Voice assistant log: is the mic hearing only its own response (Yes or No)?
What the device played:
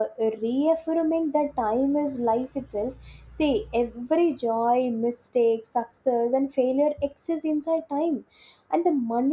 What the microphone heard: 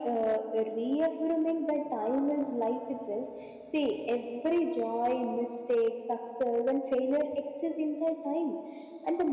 Yes